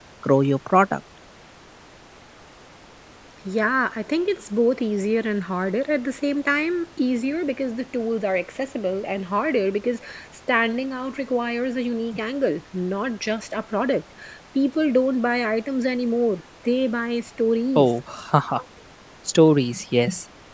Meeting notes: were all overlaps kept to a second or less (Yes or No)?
Yes